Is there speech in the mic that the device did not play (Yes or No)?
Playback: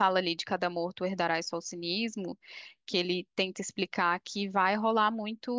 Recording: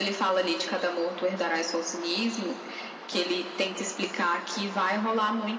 No